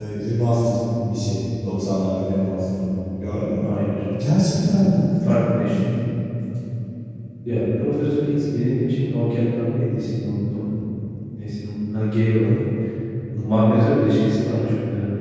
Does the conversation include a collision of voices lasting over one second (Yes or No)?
No